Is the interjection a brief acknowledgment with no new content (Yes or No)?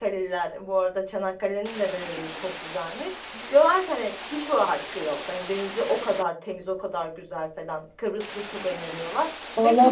No